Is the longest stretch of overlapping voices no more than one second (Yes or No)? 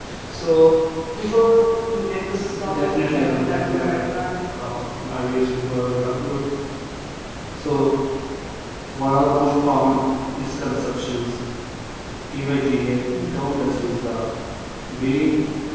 No